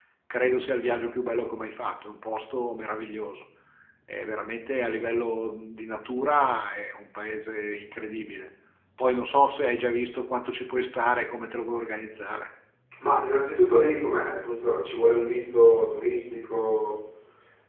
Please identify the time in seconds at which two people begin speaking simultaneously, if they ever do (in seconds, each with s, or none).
none